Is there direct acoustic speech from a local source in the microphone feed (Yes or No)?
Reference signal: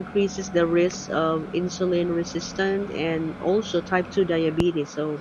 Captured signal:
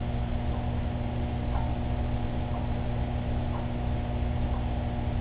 No